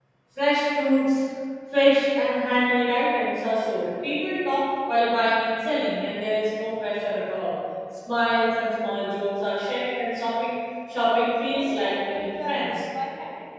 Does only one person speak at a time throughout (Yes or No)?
No